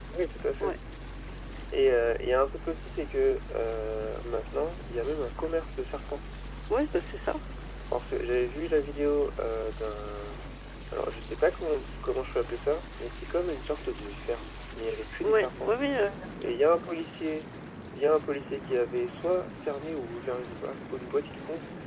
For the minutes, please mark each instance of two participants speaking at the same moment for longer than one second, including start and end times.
none

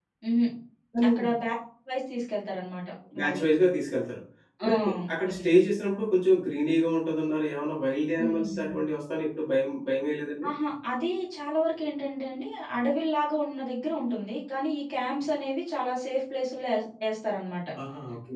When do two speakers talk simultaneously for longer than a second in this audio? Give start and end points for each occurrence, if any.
none

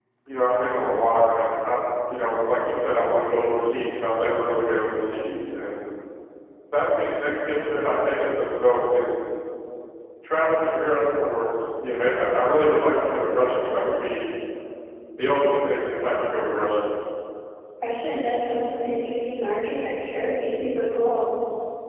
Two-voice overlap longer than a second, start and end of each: none

